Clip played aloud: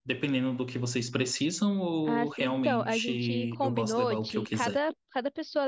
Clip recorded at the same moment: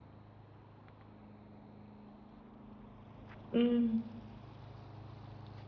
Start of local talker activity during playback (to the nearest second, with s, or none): 4 s